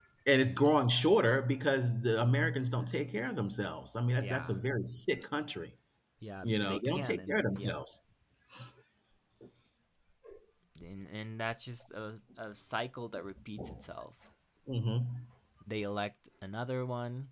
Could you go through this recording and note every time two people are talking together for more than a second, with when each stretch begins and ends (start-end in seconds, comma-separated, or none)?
6.4-7.8